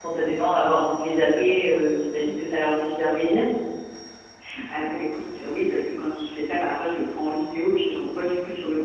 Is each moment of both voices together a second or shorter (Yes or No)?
Yes